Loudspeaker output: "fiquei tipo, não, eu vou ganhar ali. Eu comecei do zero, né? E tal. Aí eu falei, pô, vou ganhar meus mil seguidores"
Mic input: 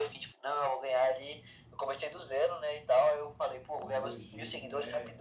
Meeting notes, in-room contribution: present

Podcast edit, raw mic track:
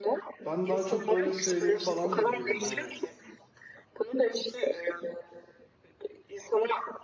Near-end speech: present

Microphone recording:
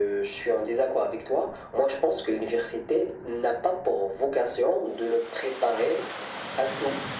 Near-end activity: none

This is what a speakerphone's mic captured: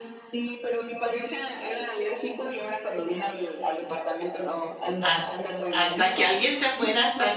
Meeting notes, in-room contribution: present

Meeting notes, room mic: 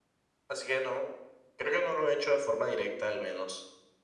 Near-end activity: none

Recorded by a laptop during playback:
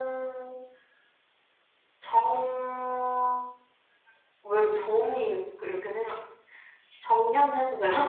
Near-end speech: none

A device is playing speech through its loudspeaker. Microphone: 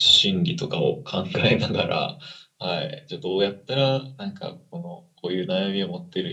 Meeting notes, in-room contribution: none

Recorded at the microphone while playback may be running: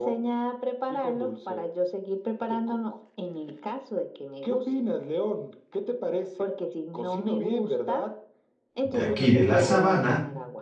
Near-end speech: present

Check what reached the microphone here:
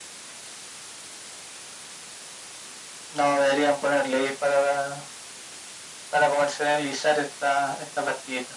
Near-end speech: none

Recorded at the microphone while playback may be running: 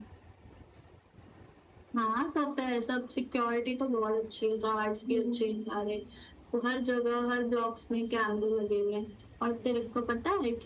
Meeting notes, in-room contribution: present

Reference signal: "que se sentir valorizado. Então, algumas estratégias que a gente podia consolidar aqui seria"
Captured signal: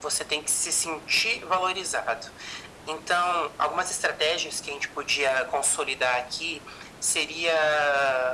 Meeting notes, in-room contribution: none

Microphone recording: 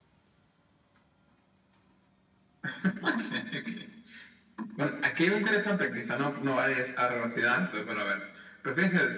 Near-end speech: none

